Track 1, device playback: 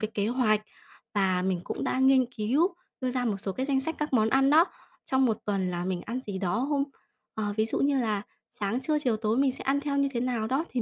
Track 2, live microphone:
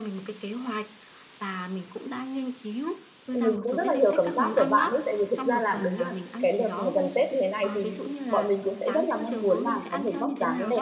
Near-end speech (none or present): present